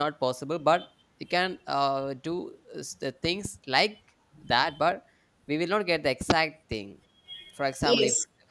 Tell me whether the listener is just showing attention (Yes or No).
No